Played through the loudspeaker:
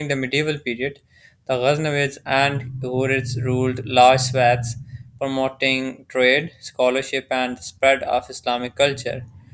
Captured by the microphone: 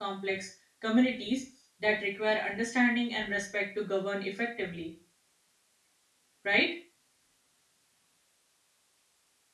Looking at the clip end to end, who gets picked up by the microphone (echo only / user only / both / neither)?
user only